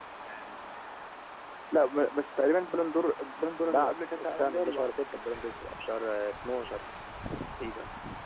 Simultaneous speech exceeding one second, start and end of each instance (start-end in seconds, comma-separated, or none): 3.6-4.9